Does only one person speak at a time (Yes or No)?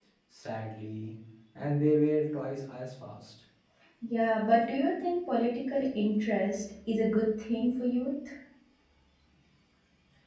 Yes